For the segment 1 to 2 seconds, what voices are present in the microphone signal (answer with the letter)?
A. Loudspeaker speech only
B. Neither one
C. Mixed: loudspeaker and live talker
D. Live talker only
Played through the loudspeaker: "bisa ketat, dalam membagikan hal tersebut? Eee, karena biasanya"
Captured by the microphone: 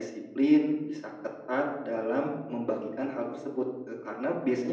A